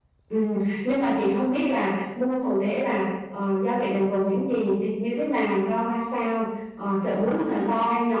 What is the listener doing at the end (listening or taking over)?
listening